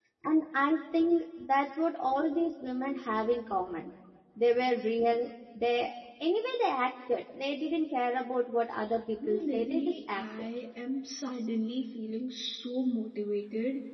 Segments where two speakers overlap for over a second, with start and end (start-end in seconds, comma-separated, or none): 9.3-10.5